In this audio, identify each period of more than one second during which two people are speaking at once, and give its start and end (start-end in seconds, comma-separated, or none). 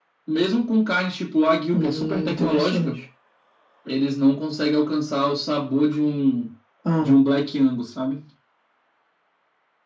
1.7-3.0